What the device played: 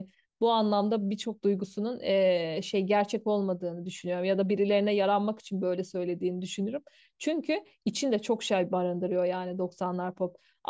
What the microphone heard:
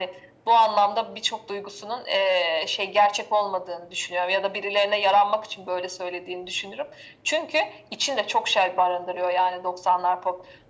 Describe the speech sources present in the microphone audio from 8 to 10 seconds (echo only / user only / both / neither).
echo only